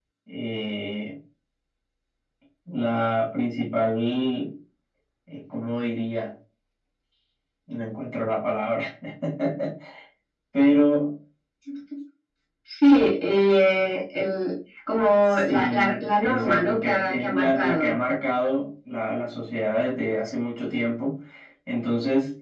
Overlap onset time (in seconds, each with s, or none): 15.3 s